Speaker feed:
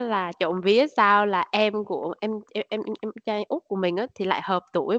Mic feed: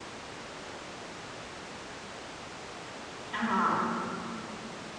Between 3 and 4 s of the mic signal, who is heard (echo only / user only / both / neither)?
user only